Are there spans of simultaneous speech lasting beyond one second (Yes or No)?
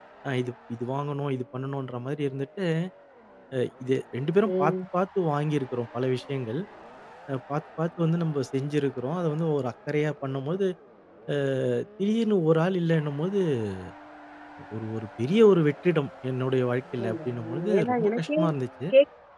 Yes